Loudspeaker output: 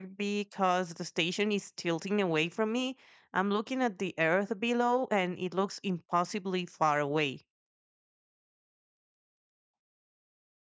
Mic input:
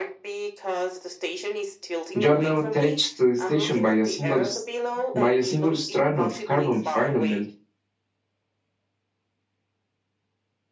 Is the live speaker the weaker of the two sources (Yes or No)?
No